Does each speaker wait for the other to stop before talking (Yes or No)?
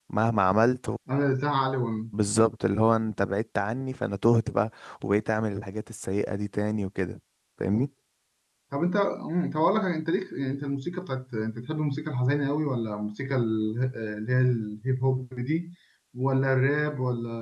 Yes